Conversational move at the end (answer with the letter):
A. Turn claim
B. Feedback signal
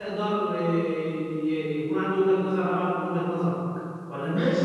A